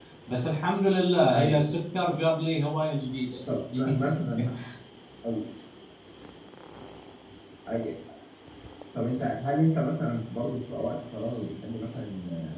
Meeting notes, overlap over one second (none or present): none